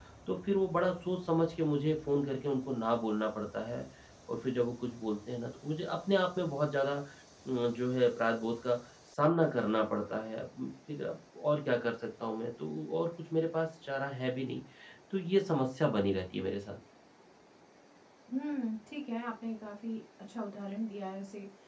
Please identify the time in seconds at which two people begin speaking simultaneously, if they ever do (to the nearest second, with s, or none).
none